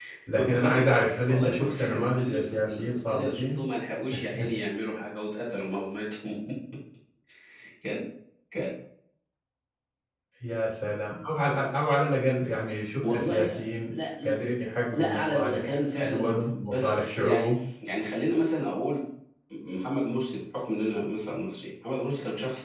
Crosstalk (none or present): present